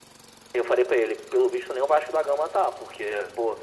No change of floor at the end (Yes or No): Yes